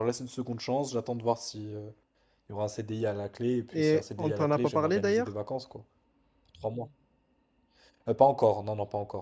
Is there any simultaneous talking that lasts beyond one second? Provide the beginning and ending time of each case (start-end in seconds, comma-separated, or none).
3.8-5.3